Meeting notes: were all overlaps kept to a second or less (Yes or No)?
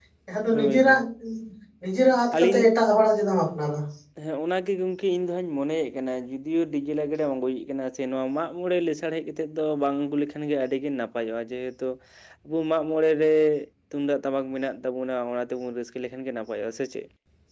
Yes